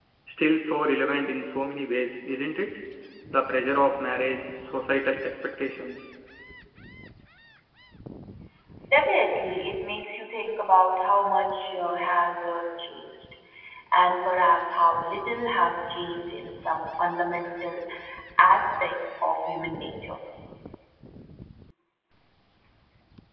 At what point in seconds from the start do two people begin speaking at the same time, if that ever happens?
none

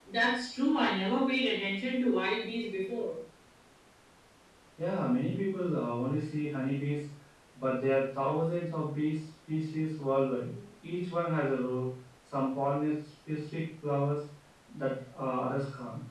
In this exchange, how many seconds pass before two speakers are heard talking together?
none

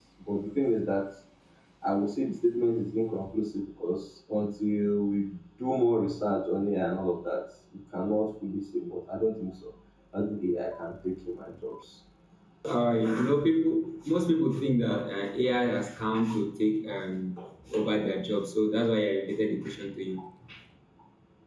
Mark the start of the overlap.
none

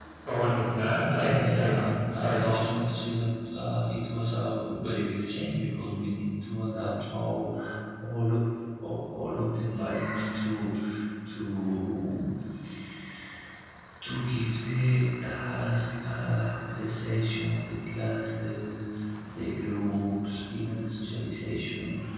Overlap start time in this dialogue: 1.1 s

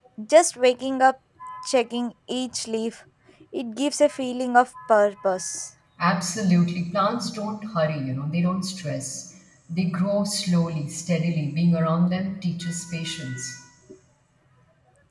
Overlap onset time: none

